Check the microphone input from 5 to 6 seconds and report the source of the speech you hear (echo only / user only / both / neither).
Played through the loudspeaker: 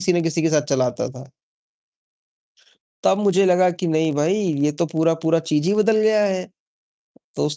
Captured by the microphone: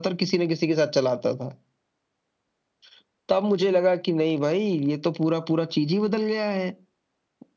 echo only